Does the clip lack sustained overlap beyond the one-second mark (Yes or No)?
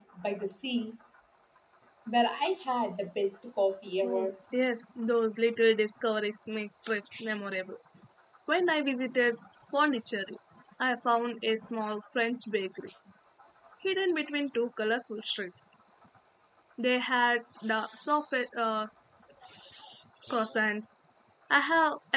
Yes